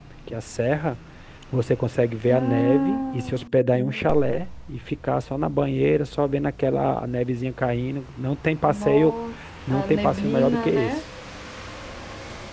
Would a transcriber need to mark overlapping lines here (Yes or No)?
Yes